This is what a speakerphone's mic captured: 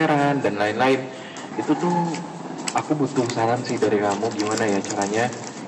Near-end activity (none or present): none